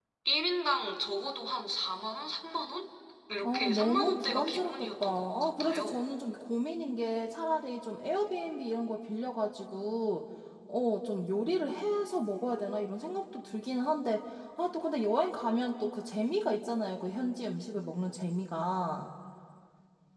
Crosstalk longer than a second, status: present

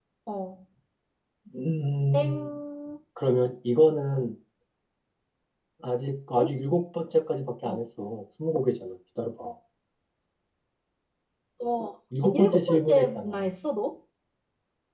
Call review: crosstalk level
present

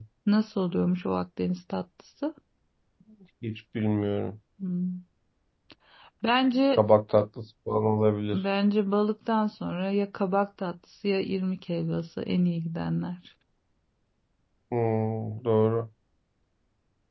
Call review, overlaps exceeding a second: none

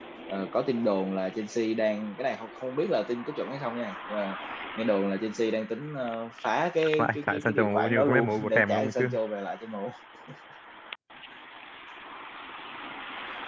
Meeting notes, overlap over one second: present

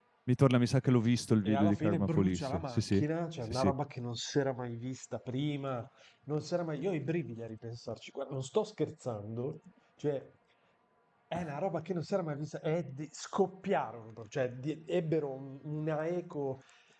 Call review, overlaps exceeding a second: present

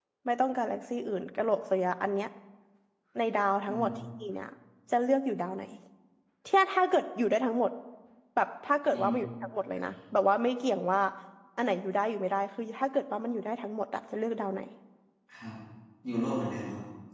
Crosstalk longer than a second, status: none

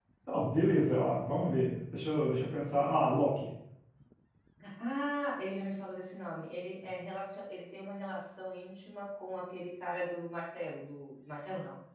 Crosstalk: none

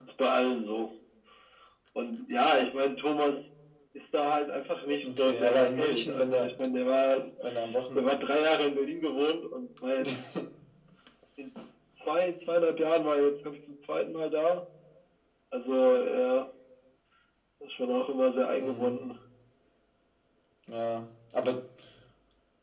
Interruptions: present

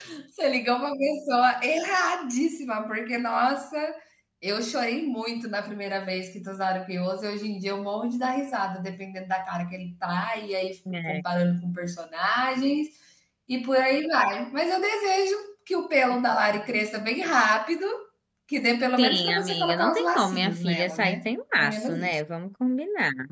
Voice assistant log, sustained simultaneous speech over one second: present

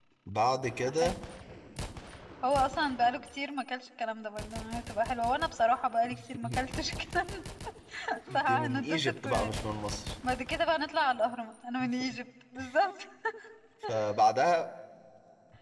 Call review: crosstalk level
present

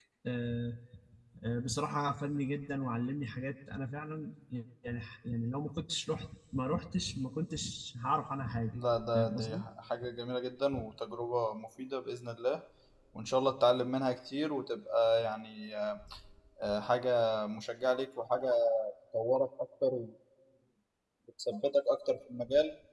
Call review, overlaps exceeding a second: none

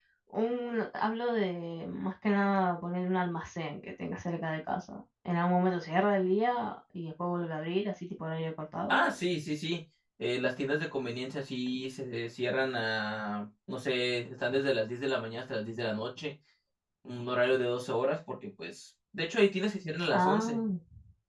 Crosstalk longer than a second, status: none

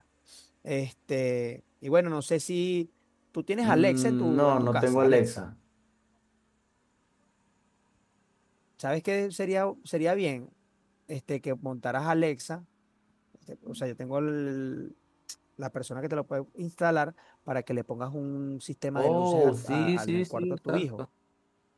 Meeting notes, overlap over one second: present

